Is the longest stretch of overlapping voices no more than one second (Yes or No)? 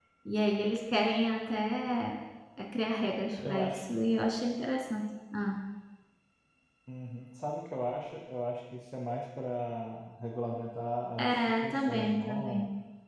No